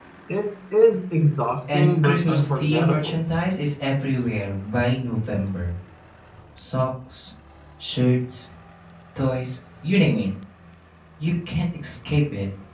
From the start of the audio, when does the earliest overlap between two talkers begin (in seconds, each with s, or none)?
1.7 s